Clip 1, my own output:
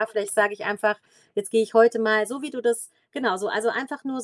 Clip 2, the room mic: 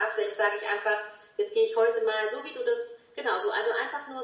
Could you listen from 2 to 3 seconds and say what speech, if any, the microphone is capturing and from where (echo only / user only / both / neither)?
echo only